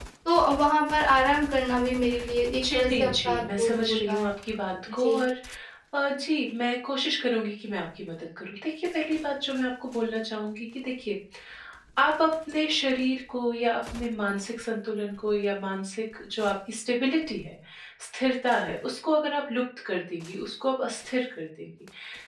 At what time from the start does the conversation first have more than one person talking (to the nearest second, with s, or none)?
3 s